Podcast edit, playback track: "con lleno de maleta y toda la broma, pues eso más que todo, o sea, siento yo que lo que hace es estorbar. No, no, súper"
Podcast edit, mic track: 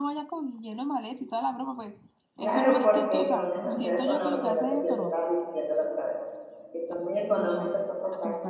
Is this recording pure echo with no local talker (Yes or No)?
No